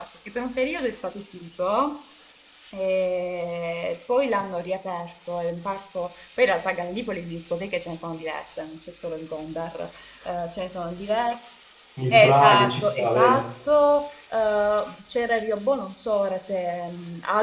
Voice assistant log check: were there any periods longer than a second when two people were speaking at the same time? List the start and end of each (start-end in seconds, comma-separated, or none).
12.1-13.4